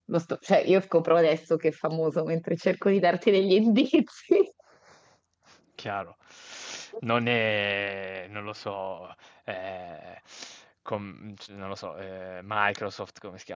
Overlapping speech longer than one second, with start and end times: none

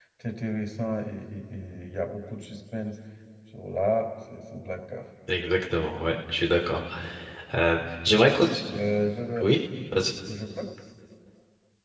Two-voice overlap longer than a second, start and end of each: none

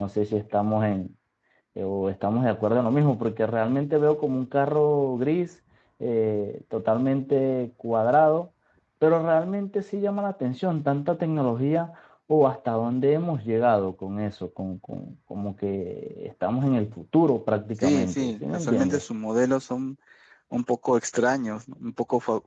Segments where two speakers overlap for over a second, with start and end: 17.8-19.0

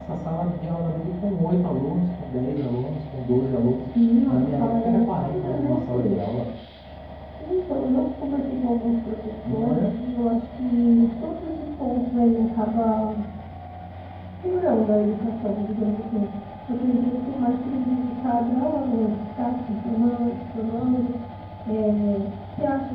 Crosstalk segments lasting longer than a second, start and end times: 4.3-6.1

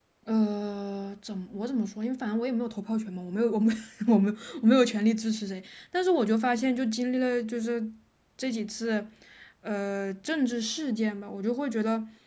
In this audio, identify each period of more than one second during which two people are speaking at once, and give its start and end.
none

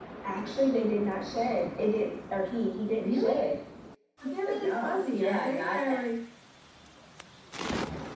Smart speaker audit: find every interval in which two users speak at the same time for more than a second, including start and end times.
4.5-5.8

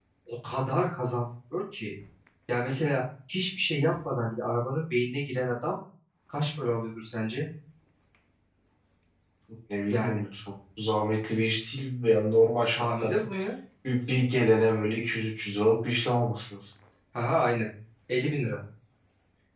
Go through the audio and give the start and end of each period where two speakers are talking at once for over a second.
none

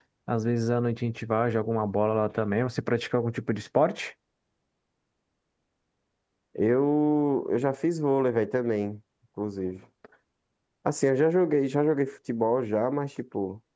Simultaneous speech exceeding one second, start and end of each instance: none

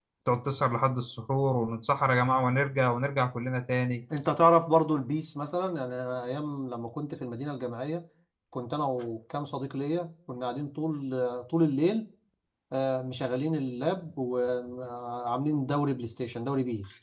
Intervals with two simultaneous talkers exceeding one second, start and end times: none

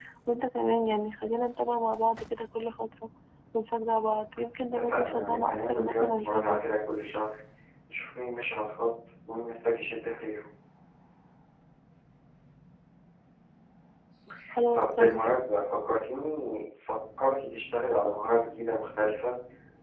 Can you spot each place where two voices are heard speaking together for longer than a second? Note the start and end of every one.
4.7-6.6

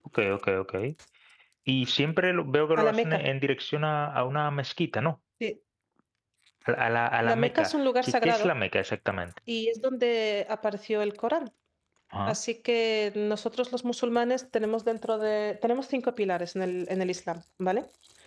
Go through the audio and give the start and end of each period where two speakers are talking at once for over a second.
7.2-8.5

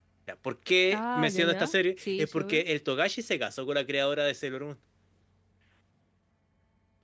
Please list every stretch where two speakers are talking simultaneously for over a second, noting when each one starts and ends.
0.9-2.6

